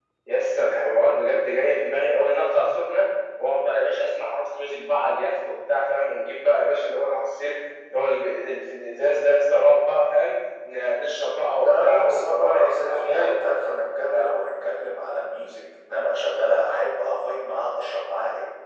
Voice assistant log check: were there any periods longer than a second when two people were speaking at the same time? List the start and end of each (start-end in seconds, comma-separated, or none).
11.6-13.3